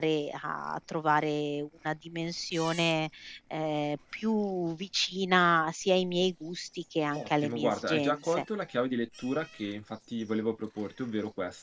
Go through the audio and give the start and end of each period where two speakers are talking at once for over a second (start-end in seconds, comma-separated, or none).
7.2-8.4